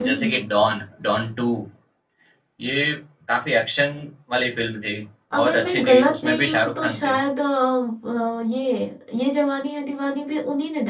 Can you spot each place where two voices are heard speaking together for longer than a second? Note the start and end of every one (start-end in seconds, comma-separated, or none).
5.3-7.2